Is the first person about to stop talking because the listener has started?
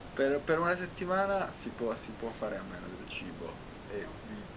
No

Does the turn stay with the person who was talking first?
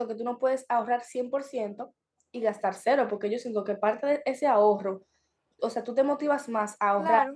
Yes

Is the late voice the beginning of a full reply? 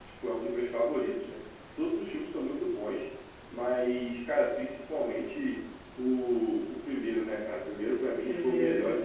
Yes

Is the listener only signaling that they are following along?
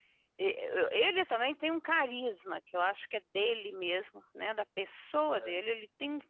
Yes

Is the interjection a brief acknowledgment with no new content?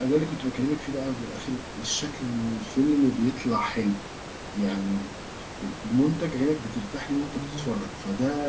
Yes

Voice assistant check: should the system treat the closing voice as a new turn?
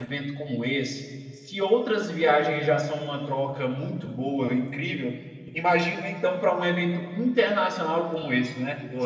No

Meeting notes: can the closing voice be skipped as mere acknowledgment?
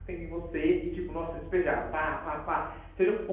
Yes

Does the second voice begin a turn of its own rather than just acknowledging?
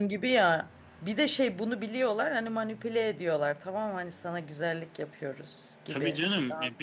Yes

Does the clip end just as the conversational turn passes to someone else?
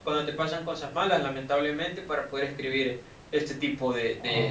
No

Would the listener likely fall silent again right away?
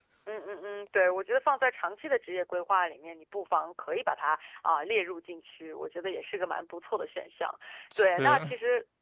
Yes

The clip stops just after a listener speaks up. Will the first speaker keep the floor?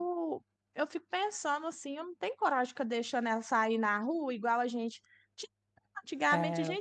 Yes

